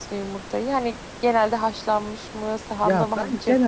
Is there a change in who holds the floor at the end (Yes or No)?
Yes